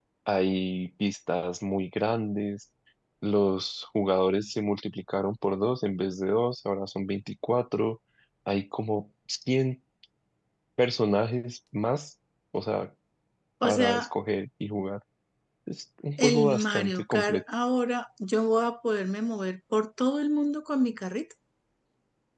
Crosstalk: present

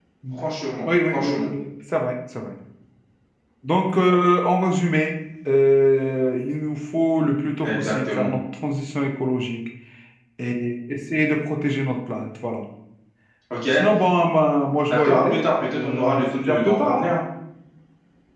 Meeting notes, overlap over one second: present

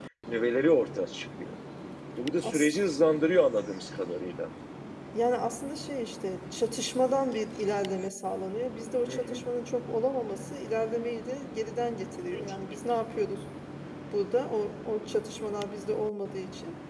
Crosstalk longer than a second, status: none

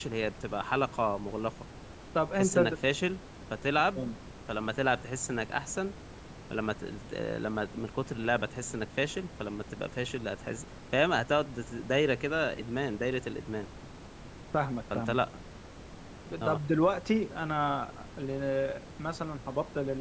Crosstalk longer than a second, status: none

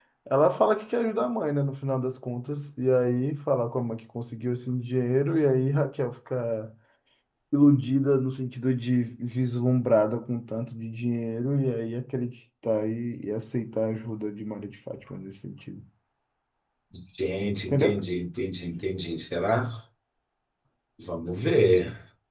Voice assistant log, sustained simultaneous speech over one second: none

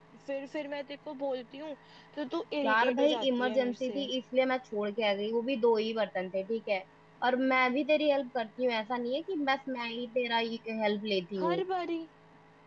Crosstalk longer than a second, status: present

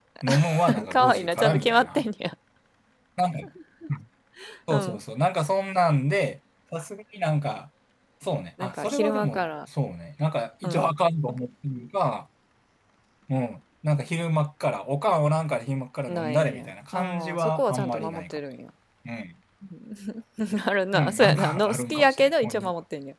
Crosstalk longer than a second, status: present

